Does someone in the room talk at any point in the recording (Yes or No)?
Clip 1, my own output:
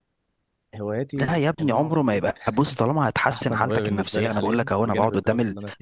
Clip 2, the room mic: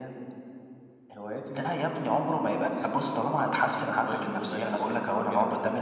No